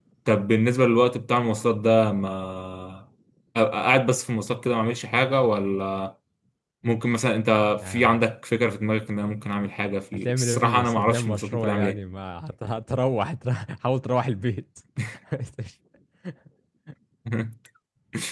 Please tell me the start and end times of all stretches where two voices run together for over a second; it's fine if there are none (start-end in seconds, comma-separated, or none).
10.1-12.0